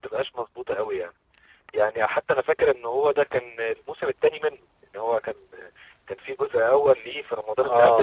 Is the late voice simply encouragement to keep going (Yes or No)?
No